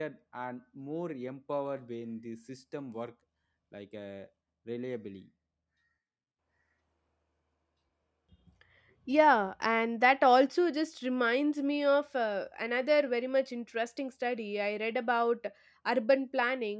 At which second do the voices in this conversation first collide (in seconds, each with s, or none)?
none